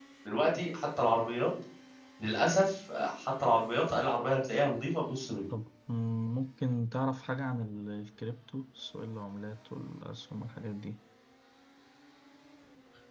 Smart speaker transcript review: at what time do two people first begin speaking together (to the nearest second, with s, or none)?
none